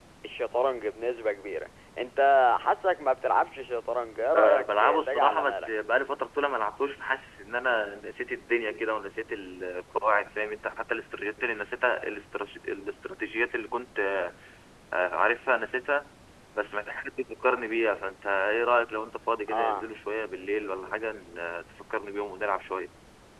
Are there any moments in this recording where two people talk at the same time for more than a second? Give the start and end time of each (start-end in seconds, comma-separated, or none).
4.3-5.7